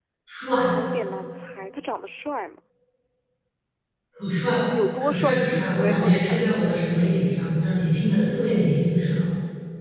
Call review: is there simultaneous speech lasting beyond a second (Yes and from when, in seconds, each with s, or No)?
Yes, from 5.0 s